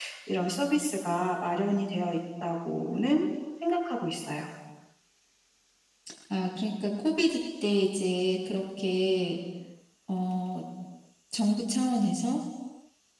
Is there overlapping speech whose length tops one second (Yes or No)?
No